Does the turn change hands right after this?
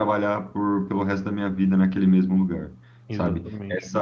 No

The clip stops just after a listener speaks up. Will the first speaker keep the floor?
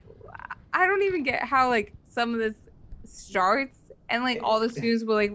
Yes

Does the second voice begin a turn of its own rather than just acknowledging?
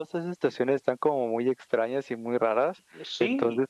No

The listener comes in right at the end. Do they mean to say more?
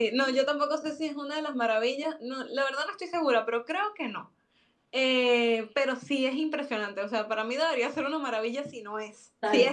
Yes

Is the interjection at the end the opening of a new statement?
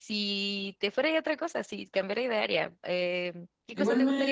Yes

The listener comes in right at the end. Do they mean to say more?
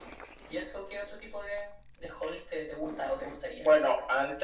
Yes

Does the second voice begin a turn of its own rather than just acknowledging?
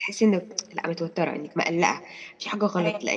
No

